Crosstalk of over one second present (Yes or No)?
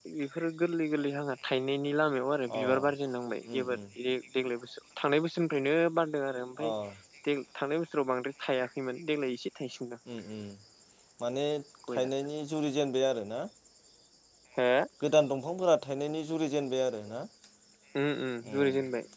No